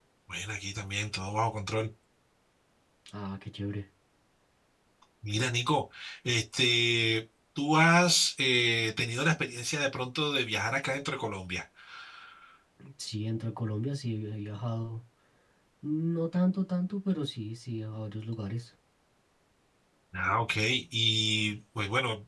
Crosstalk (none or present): none